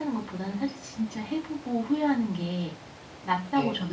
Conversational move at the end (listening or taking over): listening